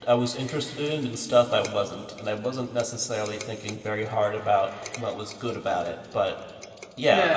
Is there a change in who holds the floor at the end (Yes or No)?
Yes